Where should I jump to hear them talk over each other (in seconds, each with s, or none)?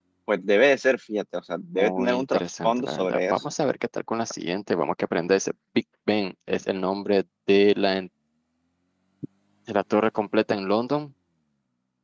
1.7 s